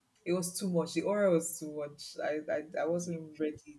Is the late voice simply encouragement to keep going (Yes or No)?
Yes